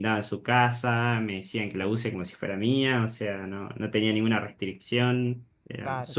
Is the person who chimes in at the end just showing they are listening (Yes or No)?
No